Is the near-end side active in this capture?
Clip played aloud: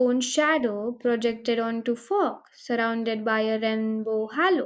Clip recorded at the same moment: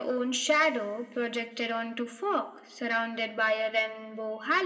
No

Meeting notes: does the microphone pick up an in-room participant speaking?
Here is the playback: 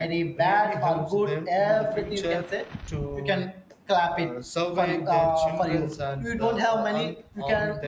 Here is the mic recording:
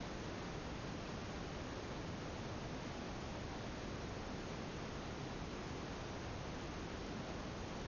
No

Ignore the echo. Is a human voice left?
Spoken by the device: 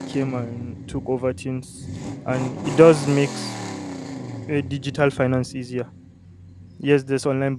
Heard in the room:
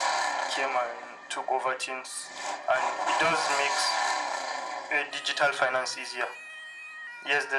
No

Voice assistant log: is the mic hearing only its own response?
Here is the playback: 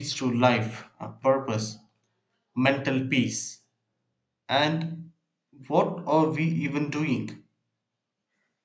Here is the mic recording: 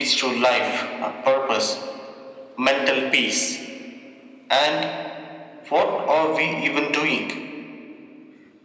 Yes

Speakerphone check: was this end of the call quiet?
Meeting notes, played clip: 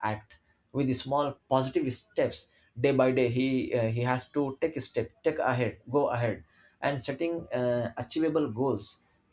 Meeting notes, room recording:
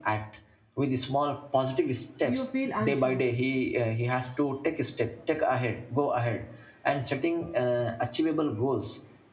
No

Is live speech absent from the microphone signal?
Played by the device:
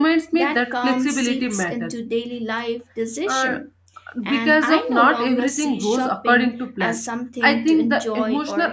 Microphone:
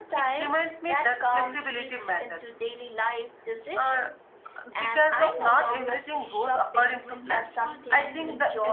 No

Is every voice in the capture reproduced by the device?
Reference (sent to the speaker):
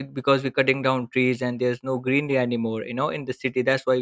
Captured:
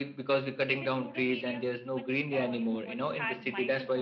No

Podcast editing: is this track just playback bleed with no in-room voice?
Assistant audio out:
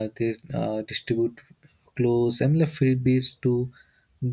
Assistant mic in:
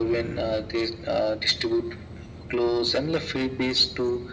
Yes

